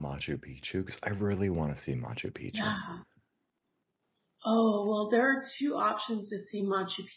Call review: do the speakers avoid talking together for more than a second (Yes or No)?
Yes